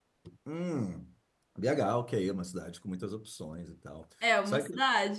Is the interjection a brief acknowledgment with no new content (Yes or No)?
No